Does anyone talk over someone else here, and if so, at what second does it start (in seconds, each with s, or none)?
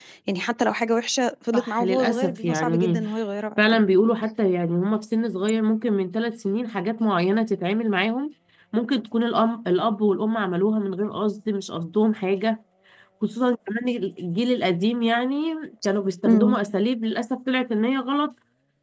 1.5 s